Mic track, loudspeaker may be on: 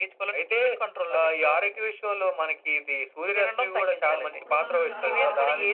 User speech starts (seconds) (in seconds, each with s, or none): 4.3 s